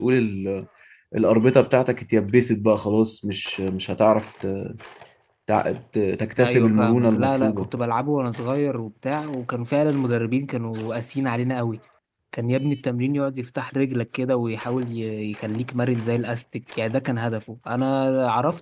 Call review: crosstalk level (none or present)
present